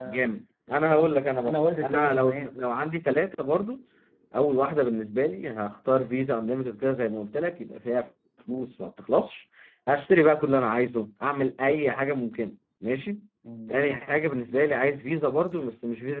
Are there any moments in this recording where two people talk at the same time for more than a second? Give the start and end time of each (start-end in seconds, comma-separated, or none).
0.9-2.6